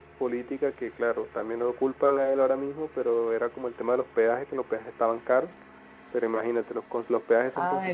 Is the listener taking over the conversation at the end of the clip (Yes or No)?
Yes